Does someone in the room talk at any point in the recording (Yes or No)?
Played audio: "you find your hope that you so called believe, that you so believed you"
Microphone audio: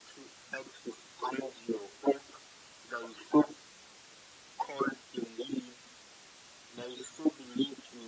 No